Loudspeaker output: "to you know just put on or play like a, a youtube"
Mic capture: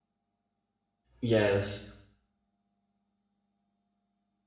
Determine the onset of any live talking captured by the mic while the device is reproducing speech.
1.2 s

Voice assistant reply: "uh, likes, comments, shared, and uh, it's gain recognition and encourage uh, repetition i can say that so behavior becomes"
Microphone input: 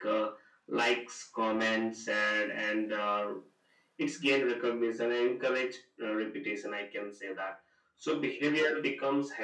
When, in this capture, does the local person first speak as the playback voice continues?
none

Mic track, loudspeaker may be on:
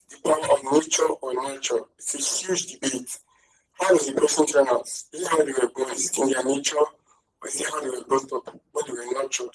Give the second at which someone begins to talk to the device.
none

